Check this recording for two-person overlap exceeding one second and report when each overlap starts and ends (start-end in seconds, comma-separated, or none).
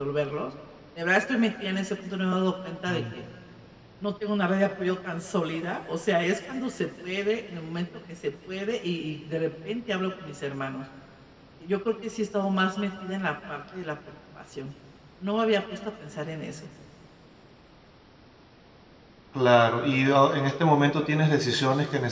none